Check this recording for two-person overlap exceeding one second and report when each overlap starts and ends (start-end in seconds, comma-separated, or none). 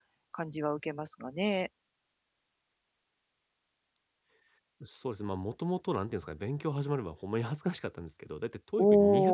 none